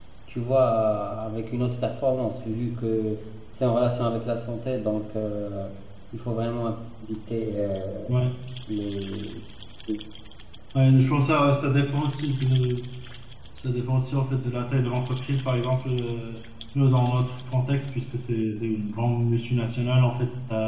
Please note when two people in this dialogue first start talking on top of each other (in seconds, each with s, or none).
none